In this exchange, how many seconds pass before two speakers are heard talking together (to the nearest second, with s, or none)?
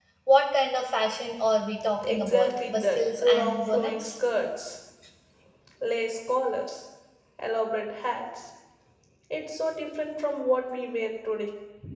2 s